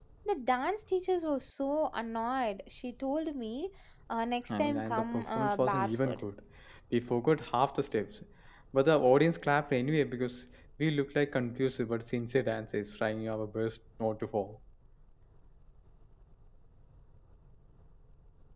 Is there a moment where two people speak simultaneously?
Yes, from 4.5 s

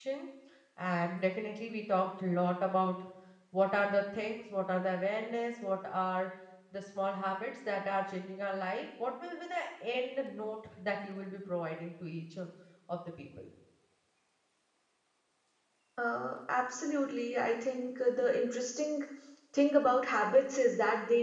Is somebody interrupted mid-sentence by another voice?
No

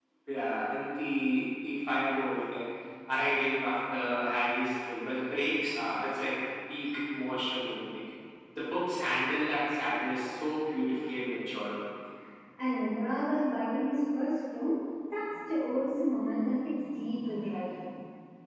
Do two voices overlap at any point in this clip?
No

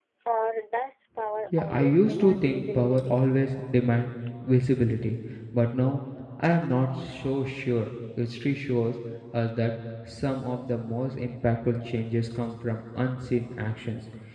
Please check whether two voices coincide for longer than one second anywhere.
Yes, from 1.5 s

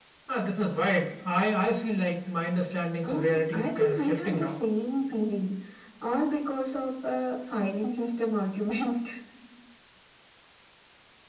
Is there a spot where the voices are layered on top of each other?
Yes, from 3.0 s

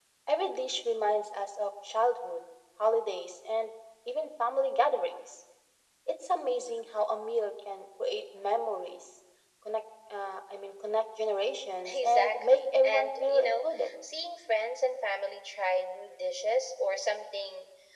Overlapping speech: Yes, from 11.8 s

